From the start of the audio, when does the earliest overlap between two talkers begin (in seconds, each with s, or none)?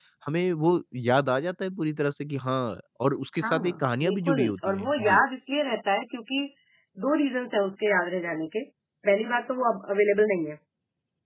3.4 s